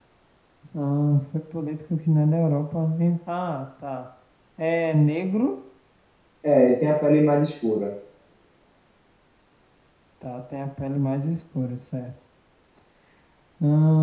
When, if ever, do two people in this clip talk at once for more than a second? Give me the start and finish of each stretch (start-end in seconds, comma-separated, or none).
none